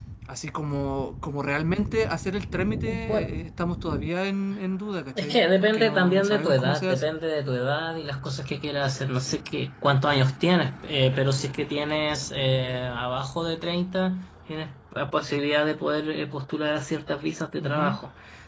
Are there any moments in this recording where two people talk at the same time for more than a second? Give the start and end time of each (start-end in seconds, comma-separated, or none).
5.2-7.1